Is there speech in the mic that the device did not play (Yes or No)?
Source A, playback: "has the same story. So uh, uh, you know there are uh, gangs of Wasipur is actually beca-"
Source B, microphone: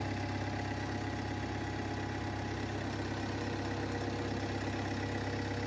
No